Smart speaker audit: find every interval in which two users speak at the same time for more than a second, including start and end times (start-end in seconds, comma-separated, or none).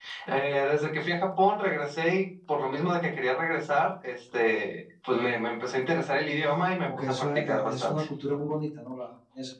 6.8-8.0